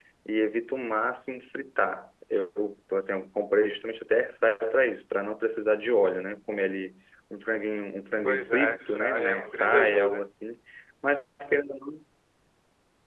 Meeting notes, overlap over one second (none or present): present